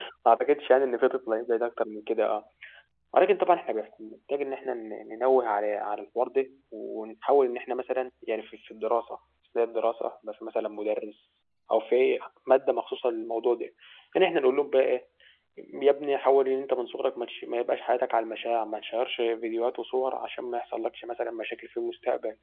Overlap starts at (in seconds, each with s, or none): none